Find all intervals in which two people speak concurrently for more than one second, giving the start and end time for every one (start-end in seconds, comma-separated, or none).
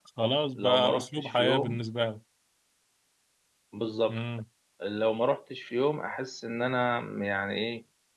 0.6-1.8